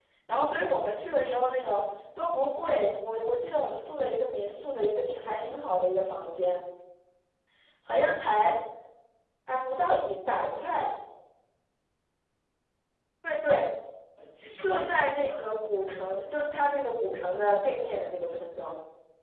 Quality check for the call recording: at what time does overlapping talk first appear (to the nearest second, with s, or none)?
15 s